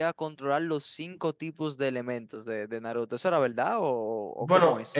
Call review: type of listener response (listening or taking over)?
taking over